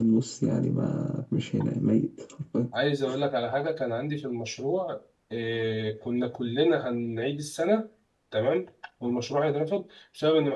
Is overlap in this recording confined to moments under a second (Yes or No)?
Yes